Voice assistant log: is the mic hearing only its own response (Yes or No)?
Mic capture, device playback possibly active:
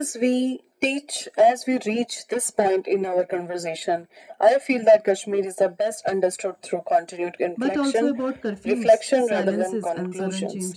No